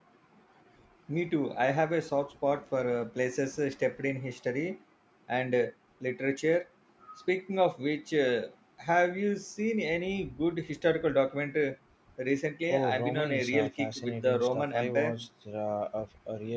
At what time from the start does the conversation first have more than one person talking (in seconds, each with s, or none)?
12.7 s